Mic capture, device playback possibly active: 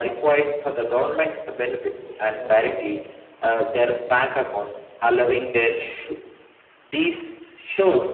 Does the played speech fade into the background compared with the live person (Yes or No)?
No